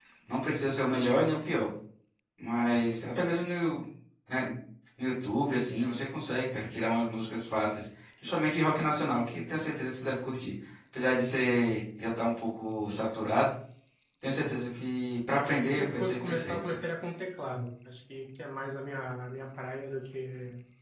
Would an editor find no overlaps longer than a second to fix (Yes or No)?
No